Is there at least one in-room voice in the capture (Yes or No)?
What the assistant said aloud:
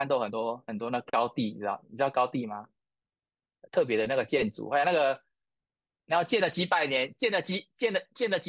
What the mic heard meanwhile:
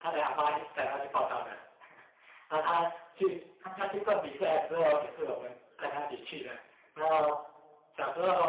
Yes